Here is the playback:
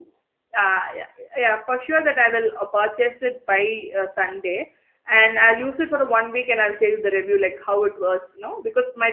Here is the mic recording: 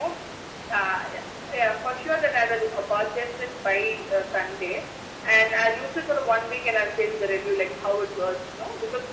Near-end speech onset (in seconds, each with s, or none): none